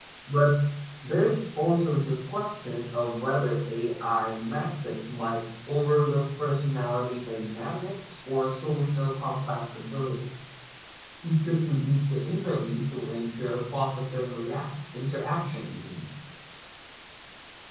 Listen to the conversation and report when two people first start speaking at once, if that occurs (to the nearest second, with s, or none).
none